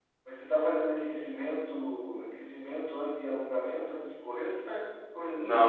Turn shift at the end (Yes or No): Yes